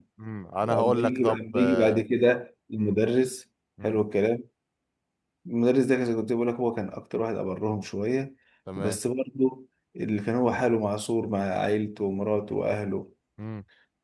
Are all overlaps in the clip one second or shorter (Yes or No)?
No